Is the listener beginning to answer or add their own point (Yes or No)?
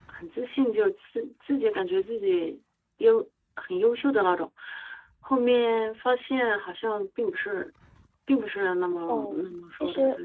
Yes